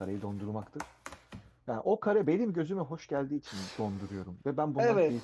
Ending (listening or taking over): taking over